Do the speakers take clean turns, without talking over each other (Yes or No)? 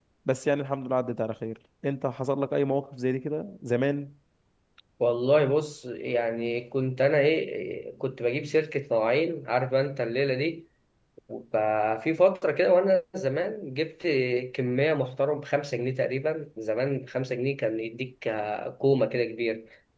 Yes